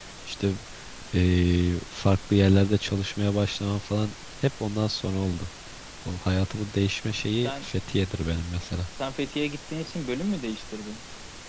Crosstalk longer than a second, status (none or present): none